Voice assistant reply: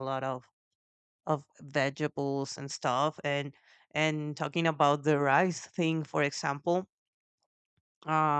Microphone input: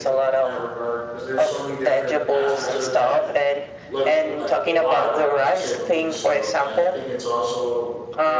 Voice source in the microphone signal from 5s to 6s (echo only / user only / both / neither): both